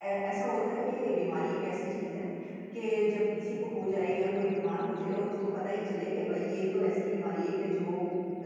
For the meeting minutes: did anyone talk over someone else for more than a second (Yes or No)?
No